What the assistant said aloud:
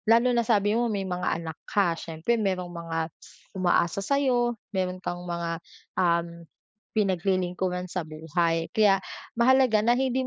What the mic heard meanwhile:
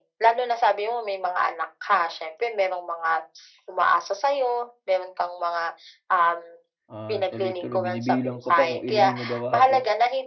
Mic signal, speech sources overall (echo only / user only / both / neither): both